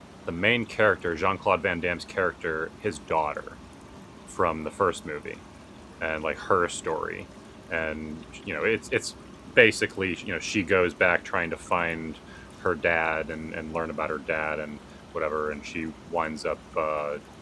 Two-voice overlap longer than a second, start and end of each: none

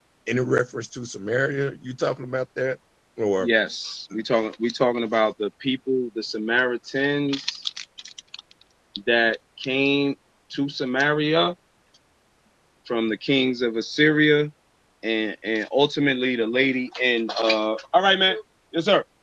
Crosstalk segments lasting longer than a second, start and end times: none

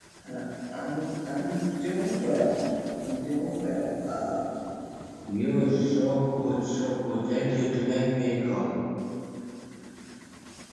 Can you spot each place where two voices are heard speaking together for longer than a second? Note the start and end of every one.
none

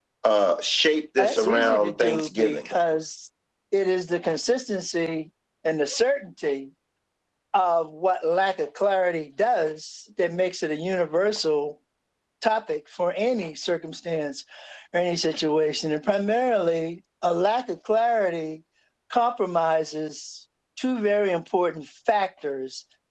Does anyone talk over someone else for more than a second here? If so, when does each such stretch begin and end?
1.2-2.8

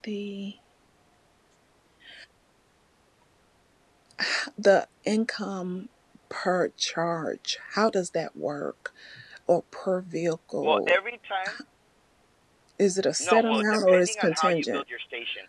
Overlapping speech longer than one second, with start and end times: 13.2-14.8

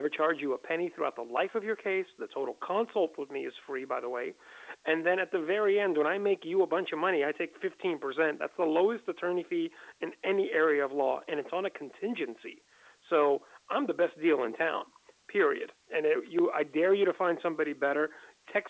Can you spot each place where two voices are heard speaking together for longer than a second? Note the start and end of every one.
none

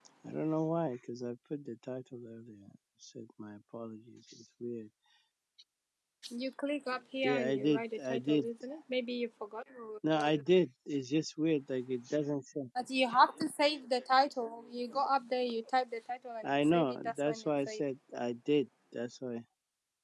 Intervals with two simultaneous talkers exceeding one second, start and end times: 7.2-8.4, 16.4-17.8

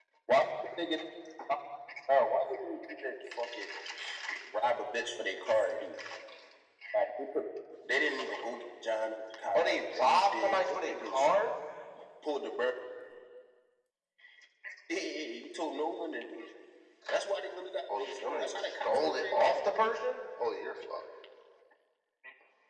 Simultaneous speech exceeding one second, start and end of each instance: 9.6-11.3, 18.0-19.6

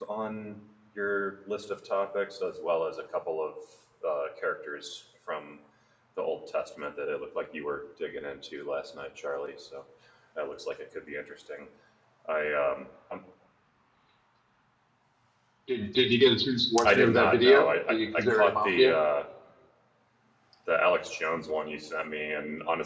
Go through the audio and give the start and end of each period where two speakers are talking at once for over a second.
16.8-18.9

